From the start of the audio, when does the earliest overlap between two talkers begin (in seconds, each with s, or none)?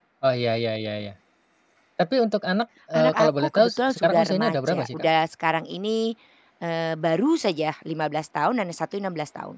2.9 s